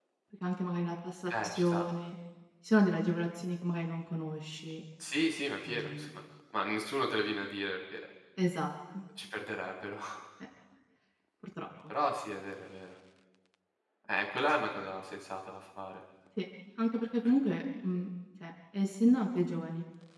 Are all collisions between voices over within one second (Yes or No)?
Yes